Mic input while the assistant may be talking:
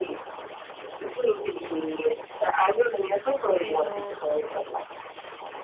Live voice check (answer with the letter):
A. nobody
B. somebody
B